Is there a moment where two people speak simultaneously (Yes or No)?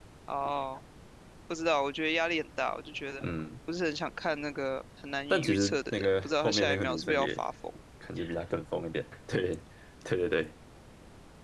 Yes